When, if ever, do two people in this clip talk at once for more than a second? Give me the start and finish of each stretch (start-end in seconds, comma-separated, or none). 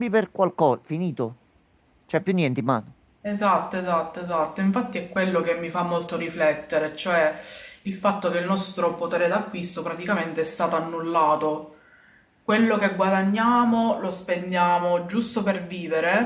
none